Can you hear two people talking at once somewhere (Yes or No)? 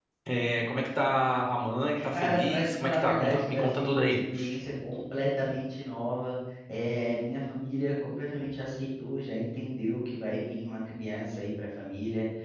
Yes